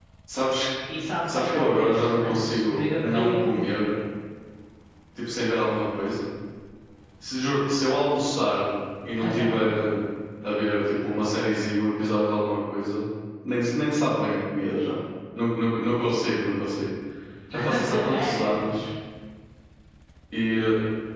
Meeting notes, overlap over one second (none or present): present